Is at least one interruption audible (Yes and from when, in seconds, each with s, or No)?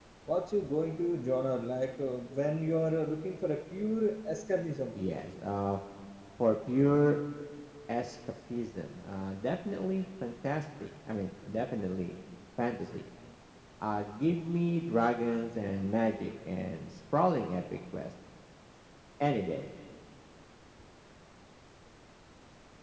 No